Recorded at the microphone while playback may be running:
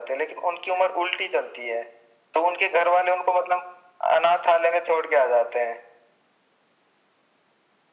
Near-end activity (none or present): none